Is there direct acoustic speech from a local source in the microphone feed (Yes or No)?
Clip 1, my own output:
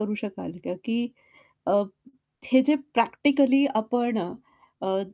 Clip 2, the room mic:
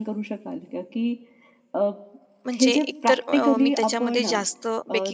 Yes